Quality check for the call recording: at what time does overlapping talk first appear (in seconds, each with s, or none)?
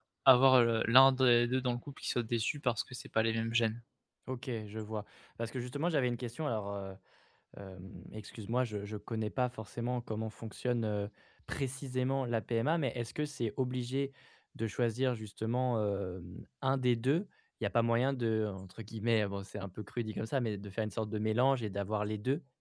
none